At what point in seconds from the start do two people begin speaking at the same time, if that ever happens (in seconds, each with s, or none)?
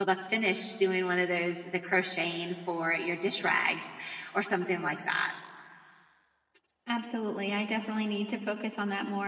none